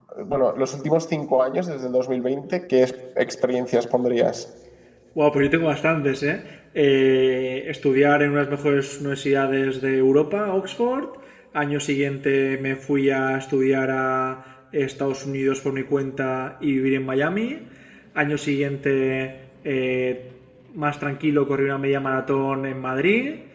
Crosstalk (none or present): none